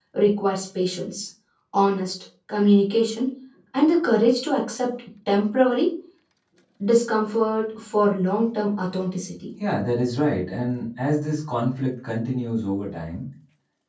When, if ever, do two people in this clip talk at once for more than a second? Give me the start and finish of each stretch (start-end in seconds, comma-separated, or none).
none